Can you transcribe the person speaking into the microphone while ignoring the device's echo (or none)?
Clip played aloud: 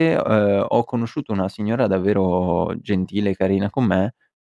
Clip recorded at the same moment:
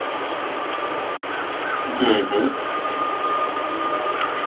Mh-mh.